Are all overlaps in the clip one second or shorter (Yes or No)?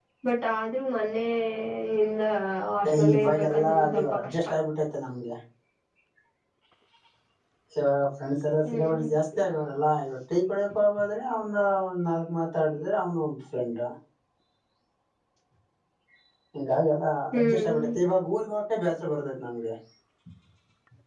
No